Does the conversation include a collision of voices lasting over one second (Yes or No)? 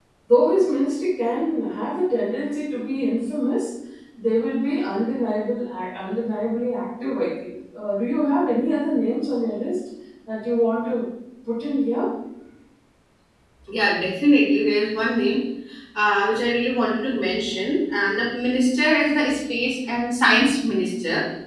No